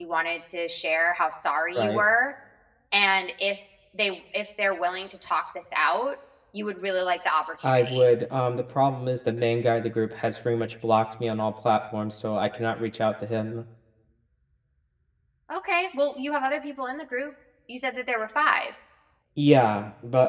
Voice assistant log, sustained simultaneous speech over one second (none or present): none